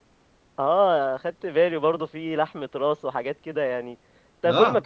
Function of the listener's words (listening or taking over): listening